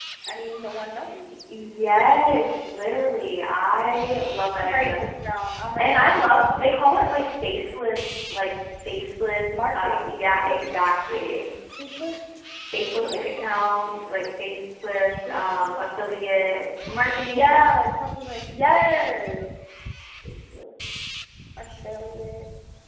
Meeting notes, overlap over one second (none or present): present